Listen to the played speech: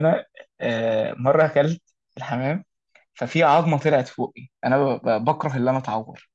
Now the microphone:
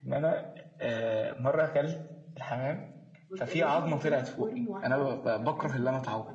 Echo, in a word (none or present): present